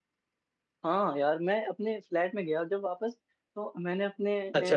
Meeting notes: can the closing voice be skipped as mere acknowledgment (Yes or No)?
Yes